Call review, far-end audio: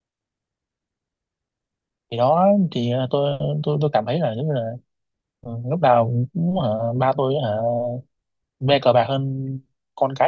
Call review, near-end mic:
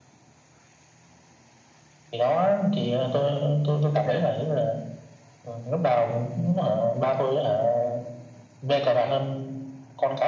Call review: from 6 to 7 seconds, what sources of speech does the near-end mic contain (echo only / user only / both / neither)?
echo only